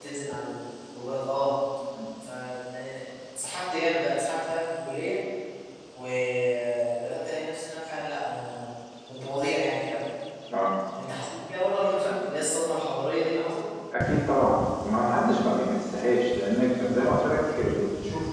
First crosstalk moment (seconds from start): none

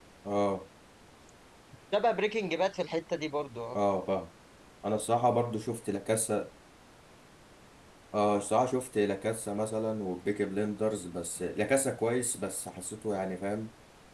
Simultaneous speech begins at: none

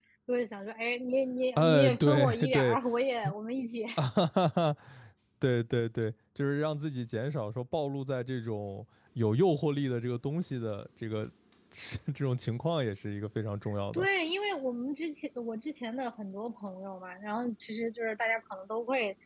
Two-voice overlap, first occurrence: 2 s

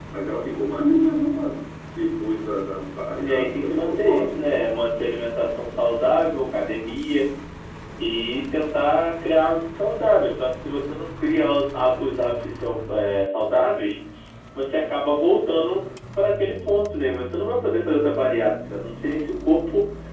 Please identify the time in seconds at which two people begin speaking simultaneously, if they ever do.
3 s

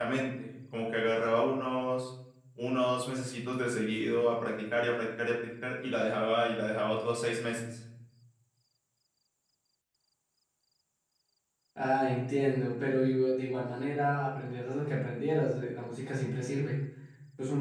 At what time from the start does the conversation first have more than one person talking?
none

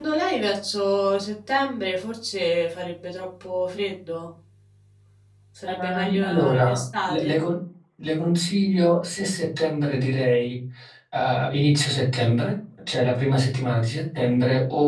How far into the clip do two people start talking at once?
6 s

